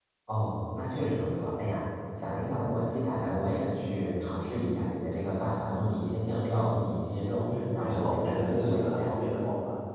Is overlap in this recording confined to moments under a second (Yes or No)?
No